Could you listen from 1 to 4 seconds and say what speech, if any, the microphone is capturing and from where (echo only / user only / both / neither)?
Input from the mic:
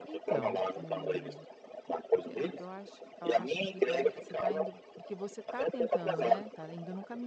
both